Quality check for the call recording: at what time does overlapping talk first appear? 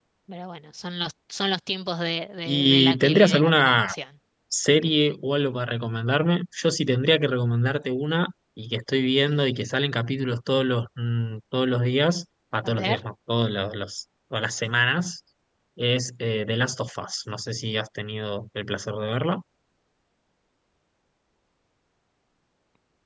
2 s

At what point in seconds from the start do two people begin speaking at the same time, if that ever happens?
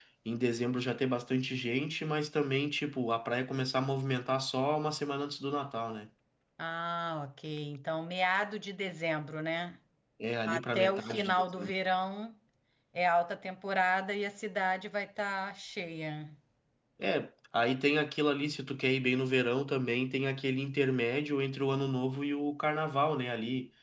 10 s

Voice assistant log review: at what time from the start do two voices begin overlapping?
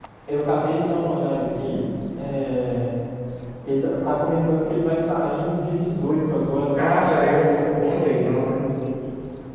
7 s

